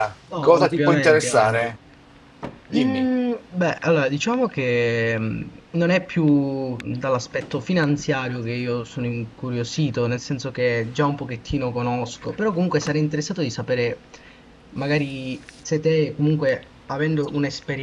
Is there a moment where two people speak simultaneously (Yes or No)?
Yes